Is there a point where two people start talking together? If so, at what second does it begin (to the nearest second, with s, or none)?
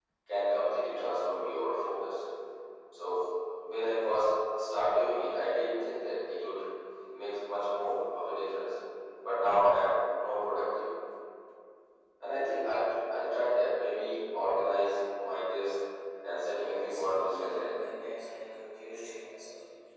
17 s